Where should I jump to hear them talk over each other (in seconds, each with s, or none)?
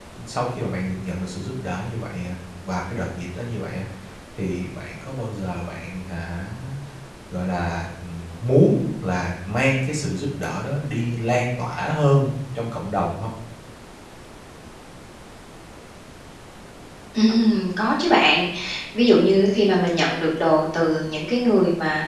none